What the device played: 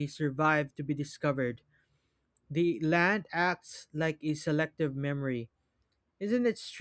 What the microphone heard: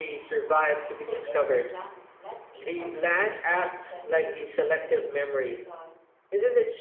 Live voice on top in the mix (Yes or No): No